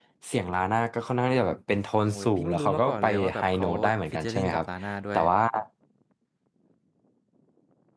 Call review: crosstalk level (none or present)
present